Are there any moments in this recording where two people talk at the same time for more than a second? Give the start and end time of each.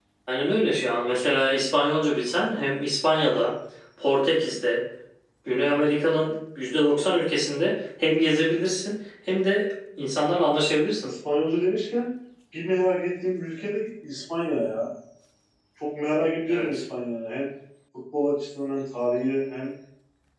none

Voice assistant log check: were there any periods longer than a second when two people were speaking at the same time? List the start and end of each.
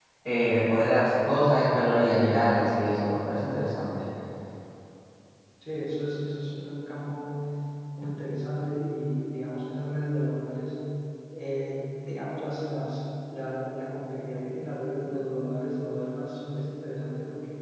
none

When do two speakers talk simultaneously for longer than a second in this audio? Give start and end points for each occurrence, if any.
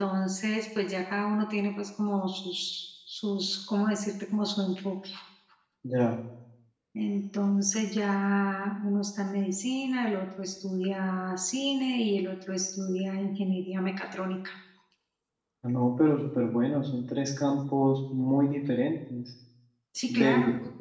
none

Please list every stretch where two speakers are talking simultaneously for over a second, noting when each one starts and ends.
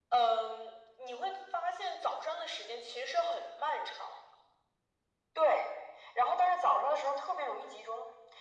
none

